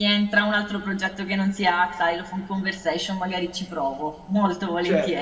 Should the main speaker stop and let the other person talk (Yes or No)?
Yes